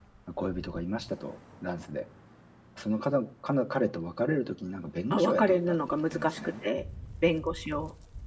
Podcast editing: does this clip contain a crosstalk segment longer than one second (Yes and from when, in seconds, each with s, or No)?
Yes, from 5.1 s